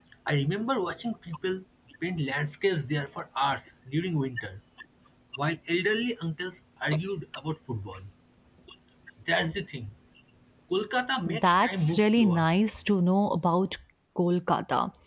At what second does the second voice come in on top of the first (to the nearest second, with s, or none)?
11 s